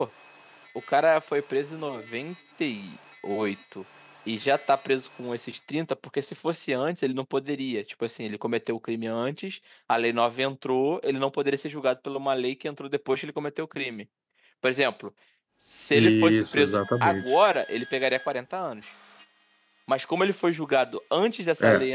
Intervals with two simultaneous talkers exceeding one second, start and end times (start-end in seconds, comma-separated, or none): 15.9-17.2